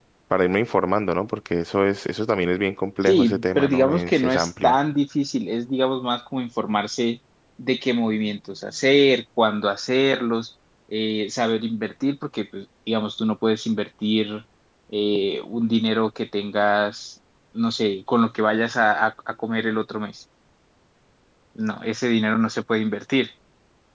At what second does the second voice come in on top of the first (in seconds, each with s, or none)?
3.0 s